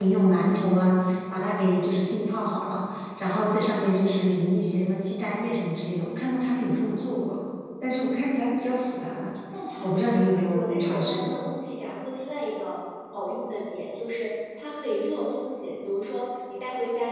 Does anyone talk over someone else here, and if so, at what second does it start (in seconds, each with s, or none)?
9.8 s